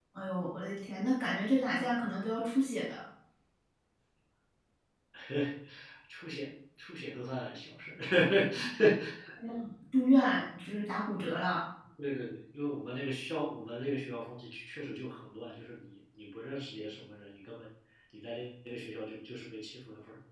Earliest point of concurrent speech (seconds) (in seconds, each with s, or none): none